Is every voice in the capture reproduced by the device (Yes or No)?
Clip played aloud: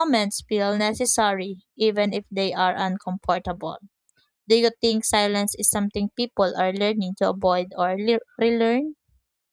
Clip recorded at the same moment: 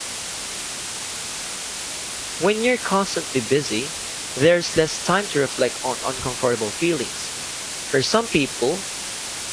No